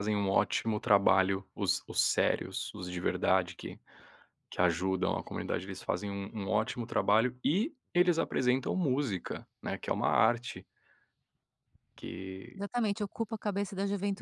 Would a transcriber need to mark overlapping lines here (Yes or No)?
No